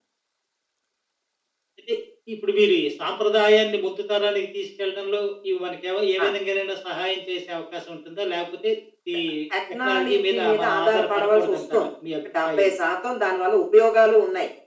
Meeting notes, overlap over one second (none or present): present